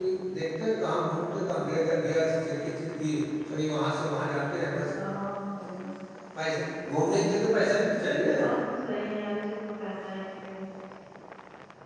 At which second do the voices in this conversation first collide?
none

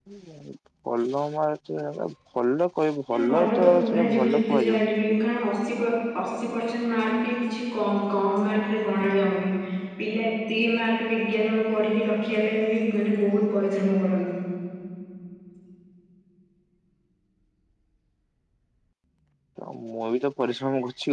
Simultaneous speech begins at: 3.1 s

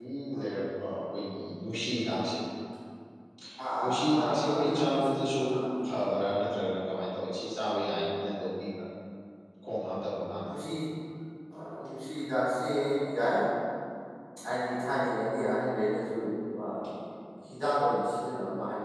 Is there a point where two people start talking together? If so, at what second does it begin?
3.8 s

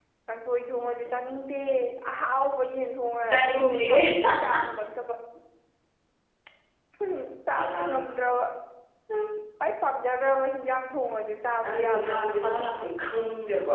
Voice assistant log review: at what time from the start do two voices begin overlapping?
3.3 s

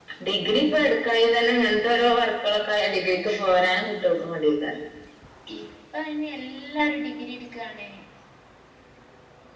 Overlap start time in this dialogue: none

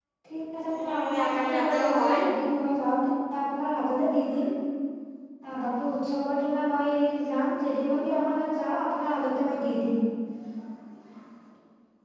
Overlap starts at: 0.8 s

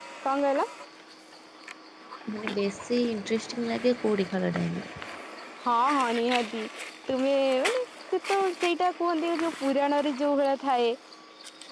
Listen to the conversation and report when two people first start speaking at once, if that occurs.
none

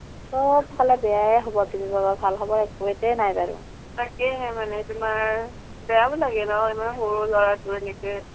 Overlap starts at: none

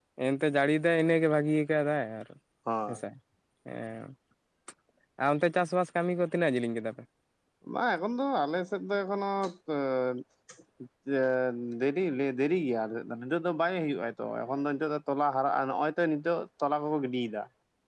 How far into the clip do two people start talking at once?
none

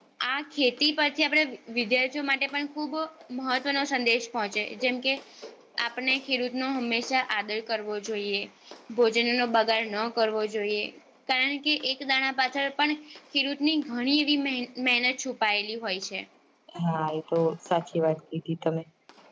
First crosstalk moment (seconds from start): none

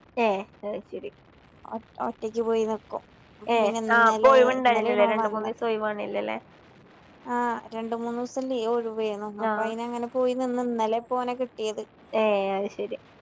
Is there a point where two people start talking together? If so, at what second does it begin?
3.5 s

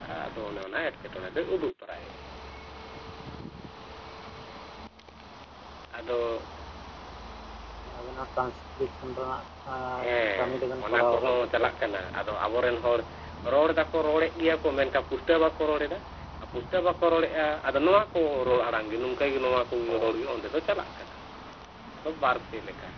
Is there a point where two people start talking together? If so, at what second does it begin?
10.4 s

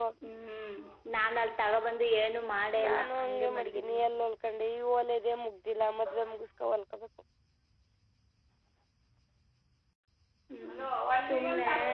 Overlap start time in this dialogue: 2.8 s

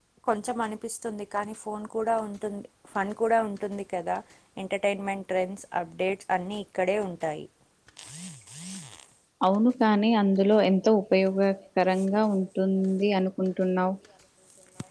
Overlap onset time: none

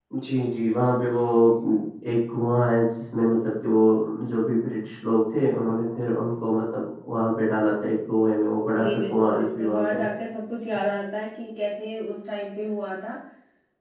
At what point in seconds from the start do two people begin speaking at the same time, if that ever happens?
8.7 s

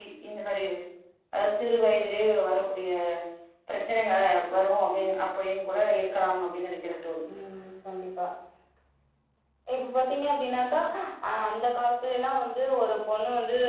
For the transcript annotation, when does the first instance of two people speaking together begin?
none

